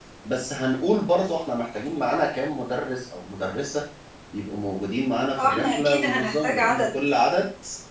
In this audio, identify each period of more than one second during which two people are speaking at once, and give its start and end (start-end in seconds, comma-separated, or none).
5.4-6.8